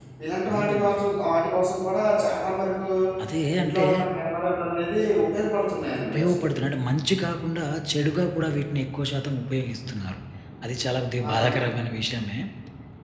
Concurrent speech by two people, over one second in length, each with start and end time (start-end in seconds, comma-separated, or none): none